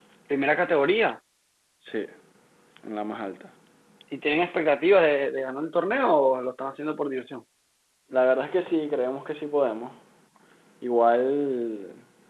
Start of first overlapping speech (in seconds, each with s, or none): none